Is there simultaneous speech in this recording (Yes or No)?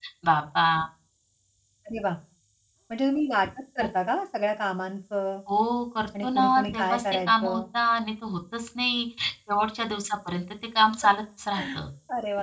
Yes